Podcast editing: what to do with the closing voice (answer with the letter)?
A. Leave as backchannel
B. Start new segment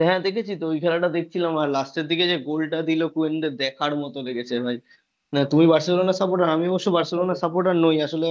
A